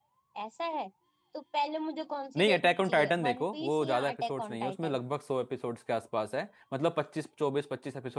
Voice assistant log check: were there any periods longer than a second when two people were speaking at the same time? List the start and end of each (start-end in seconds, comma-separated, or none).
2.4-5.0